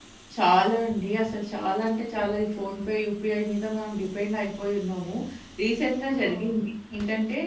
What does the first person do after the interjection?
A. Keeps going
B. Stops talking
A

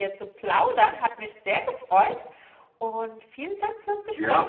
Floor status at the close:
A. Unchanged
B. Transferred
B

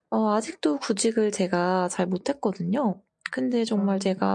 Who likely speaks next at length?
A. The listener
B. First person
B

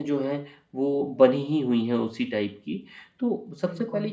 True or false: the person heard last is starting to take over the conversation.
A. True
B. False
B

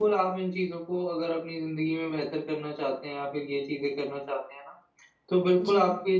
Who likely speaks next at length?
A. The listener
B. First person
B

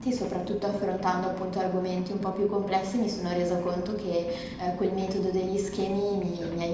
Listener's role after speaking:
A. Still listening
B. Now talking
A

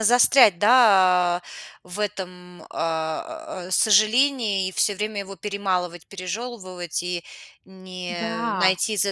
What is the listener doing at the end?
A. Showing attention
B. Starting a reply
A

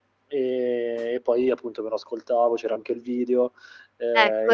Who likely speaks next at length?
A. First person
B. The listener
B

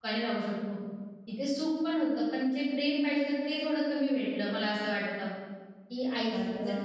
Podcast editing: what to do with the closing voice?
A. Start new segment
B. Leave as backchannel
A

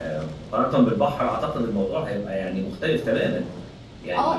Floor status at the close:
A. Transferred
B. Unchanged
A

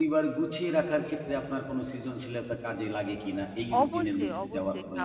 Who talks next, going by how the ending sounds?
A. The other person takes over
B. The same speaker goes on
A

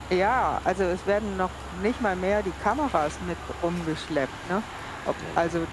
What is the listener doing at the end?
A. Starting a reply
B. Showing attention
B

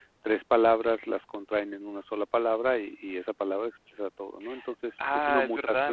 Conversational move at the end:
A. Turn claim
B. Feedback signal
A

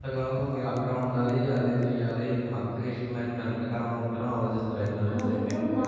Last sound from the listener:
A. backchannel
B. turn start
B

